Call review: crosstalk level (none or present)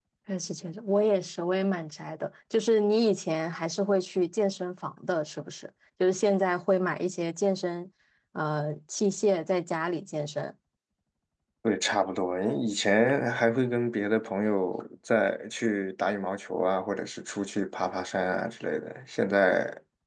none